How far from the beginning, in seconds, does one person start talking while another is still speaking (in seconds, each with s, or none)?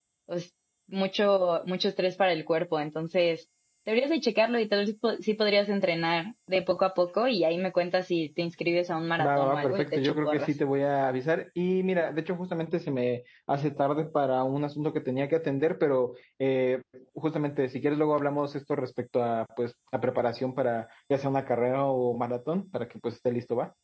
9.2 s